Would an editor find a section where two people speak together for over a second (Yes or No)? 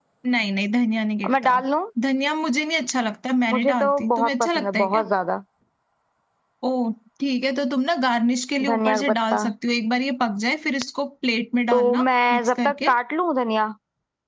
Yes